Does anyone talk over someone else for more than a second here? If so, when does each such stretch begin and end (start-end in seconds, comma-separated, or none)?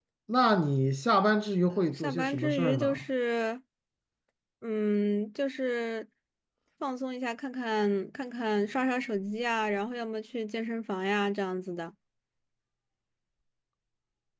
1.7-3.0